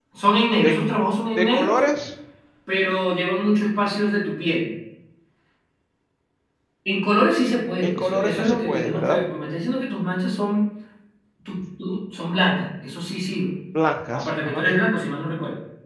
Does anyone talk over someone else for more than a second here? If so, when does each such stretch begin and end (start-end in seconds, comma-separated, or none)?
7.8-9.2